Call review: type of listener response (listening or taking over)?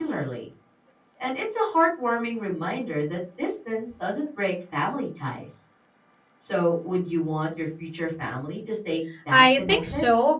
taking over